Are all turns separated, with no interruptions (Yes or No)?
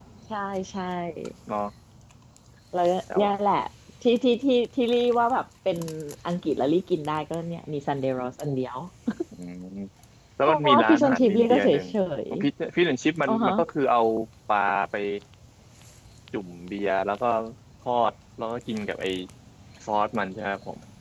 No